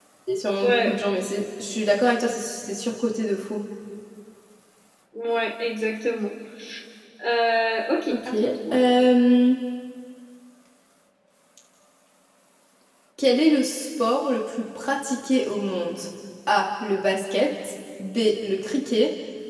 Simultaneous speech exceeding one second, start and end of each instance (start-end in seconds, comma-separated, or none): none